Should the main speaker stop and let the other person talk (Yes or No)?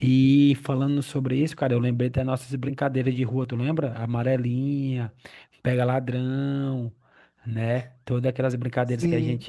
Yes